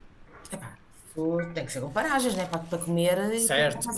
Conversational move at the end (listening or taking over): taking over